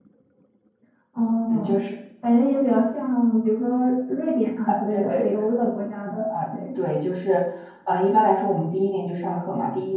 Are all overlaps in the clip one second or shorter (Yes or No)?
Yes